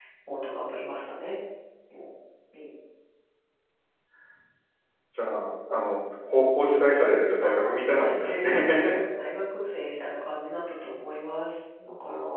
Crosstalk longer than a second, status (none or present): present